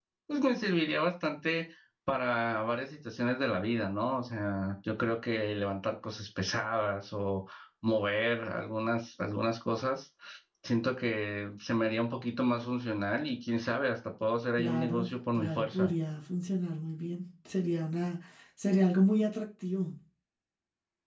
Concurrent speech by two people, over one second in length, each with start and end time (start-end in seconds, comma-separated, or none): 14.6-15.9